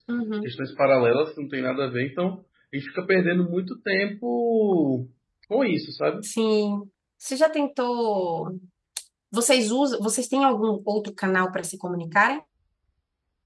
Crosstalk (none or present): none